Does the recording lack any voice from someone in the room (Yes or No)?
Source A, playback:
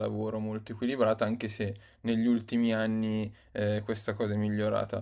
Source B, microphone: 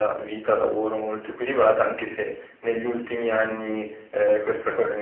Yes